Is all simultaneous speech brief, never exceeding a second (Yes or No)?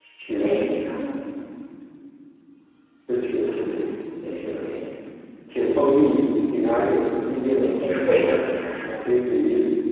Yes